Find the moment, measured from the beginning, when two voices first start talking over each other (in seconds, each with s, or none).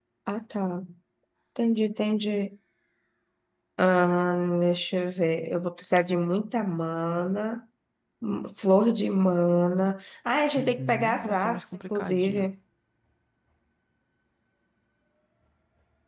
10.6 s